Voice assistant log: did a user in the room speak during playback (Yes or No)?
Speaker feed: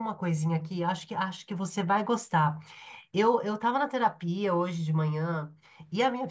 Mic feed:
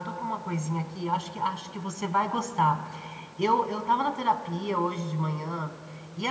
No